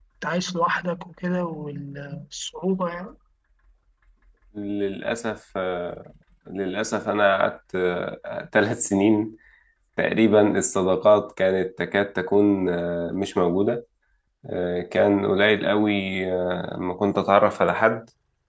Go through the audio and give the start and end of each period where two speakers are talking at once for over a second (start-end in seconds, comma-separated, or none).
none